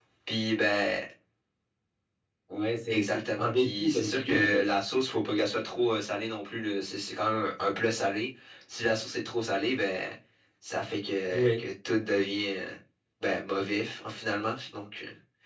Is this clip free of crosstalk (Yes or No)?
No